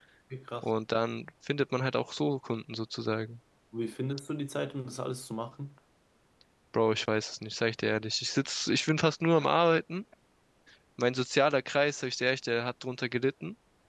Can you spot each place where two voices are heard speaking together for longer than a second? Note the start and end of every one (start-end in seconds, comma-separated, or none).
none